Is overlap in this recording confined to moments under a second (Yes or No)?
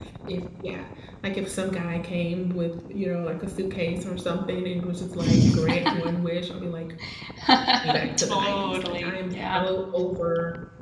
No